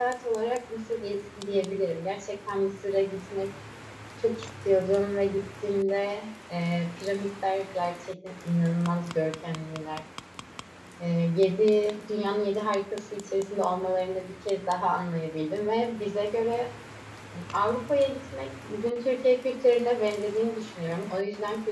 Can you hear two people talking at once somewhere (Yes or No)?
No